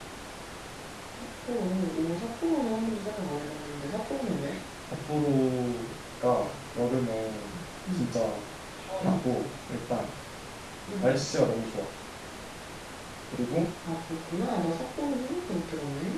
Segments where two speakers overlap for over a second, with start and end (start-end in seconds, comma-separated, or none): none